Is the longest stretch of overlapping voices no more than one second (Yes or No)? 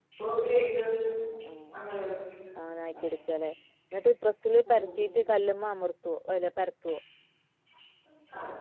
Yes